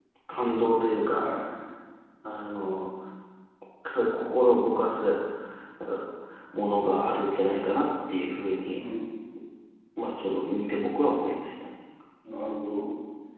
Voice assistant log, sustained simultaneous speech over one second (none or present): none